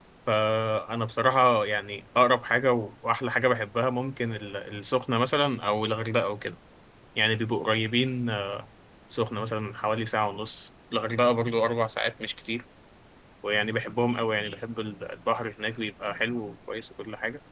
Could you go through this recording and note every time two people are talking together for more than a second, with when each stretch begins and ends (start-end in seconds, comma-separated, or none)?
none